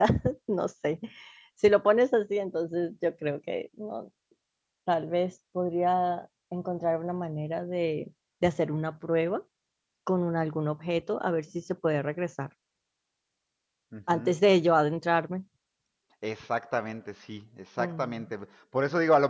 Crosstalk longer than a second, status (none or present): none